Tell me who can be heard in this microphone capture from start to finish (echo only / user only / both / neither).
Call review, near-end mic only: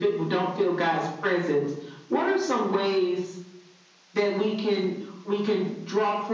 echo only